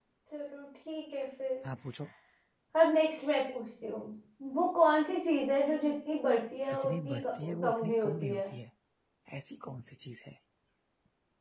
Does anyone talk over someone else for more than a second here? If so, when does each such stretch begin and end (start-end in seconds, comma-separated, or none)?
6.8-8.4